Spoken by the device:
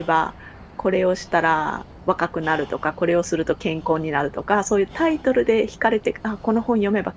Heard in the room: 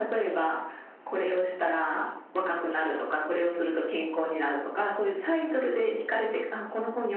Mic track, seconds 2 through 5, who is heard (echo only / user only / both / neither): echo only